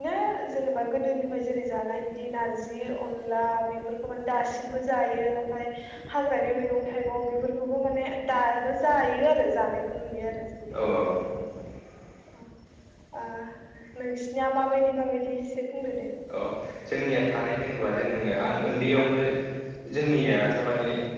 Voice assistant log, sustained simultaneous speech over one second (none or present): none